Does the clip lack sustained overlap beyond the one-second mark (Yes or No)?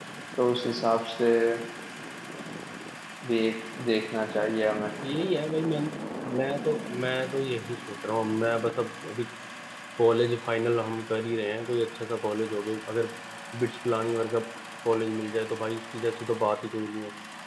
Yes